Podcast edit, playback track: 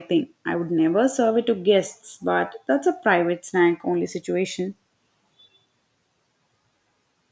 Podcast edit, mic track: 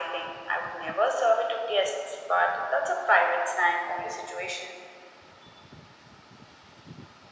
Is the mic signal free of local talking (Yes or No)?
Yes